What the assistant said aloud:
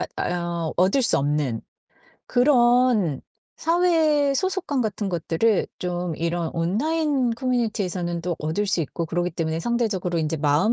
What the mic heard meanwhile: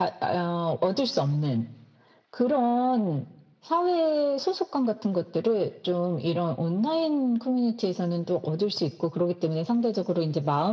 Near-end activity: none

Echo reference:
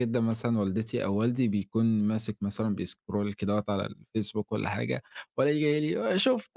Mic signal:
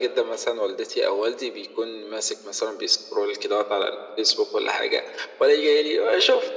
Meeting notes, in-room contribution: none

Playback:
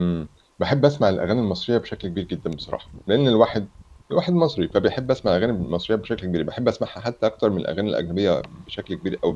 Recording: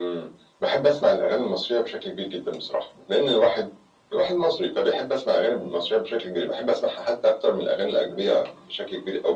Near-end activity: none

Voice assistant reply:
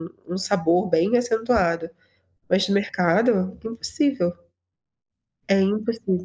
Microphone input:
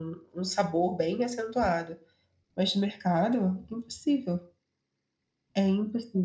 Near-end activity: none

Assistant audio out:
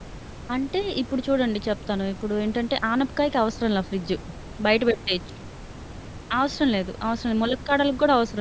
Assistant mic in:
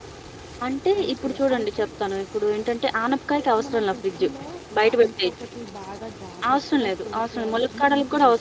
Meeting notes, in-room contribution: present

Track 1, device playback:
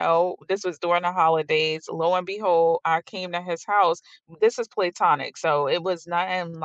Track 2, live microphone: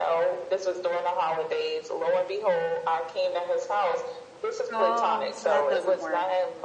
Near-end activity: present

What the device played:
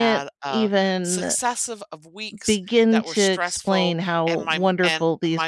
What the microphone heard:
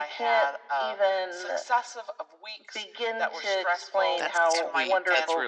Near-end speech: present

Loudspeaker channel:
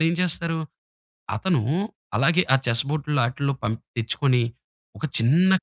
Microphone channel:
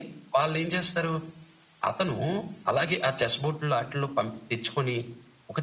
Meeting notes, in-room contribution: none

